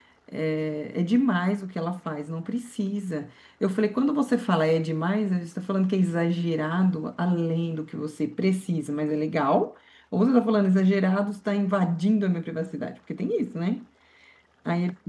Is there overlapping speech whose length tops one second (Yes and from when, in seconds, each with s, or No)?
No